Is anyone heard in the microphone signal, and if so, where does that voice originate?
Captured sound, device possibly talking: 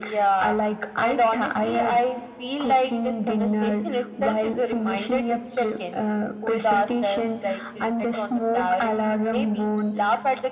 echo only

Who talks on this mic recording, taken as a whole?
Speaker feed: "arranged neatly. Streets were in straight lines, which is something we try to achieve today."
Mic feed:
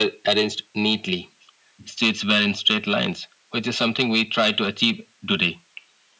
echo only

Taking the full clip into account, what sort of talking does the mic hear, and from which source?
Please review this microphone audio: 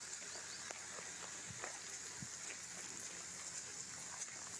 neither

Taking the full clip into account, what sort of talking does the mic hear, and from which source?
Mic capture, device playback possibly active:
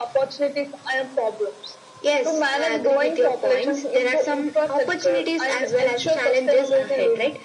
echo only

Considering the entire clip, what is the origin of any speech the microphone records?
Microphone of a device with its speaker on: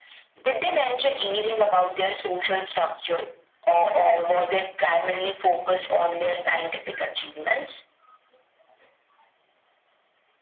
echo only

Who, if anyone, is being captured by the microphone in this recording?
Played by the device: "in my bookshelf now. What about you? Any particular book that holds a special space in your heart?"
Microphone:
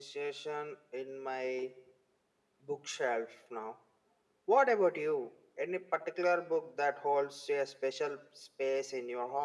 echo only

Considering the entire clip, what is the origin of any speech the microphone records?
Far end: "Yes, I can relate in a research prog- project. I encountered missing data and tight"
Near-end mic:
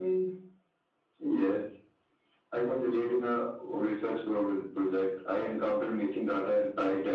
echo only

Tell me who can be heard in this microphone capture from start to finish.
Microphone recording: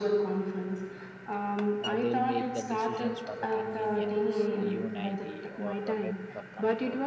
both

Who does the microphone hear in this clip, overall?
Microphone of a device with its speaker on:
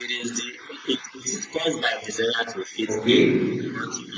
both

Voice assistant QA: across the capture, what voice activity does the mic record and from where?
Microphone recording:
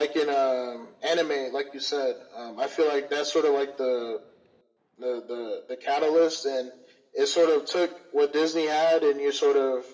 echo only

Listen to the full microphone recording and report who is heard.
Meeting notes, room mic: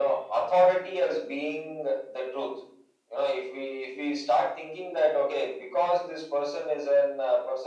echo only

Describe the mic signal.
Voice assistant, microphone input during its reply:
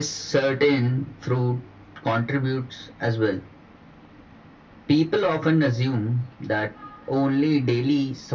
echo only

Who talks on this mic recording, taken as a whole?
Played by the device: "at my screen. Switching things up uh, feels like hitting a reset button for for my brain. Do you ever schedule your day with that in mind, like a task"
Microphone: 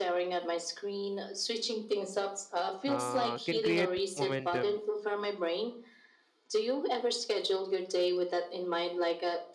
both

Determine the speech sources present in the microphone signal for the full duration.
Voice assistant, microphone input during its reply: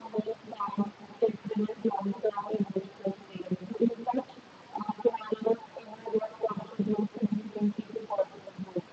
echo only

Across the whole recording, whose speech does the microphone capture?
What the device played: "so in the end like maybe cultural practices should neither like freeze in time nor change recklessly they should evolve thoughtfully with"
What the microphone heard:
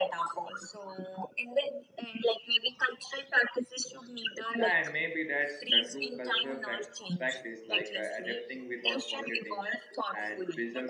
both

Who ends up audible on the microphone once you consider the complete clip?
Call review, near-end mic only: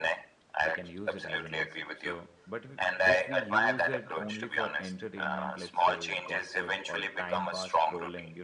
both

